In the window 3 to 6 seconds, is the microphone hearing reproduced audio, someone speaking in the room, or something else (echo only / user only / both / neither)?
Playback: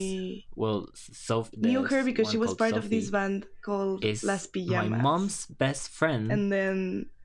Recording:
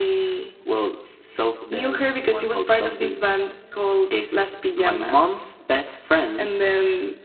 echo only